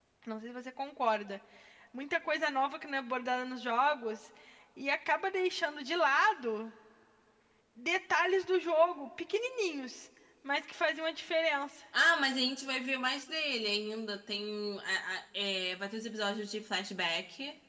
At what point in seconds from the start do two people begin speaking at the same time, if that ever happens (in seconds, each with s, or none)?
none